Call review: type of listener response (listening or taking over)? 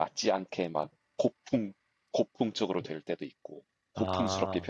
listening